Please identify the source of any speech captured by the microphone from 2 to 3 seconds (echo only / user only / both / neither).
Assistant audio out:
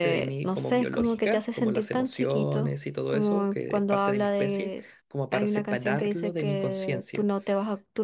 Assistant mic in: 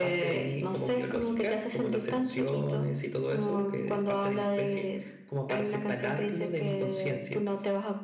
echo only